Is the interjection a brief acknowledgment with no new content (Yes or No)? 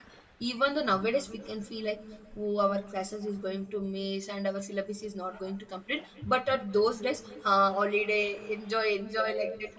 No